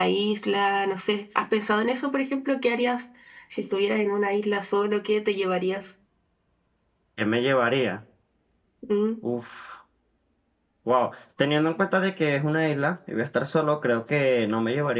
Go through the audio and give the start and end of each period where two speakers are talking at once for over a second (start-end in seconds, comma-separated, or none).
none